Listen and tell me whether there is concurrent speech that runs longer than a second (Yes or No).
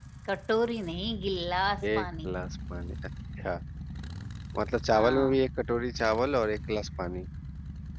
No